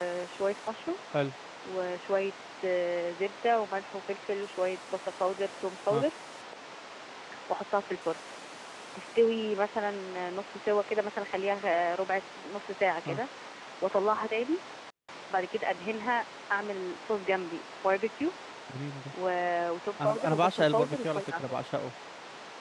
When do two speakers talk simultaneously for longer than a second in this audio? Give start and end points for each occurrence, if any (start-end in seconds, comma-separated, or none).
20.0-21.4